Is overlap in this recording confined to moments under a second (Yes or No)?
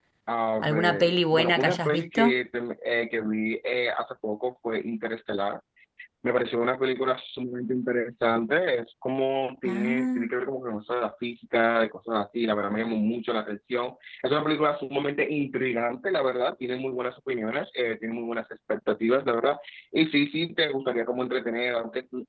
No